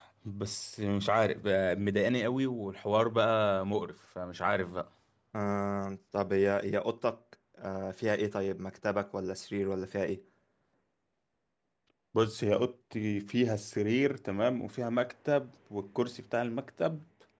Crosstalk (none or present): none